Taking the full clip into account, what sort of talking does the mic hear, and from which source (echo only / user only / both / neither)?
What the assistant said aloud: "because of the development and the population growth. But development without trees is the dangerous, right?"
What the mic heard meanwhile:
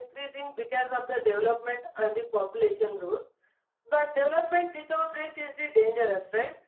echo only